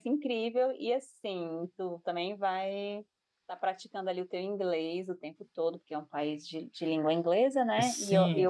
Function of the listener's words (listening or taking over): taking over